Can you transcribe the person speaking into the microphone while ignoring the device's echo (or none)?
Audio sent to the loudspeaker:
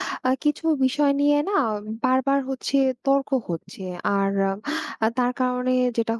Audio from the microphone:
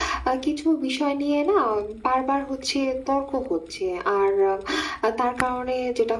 none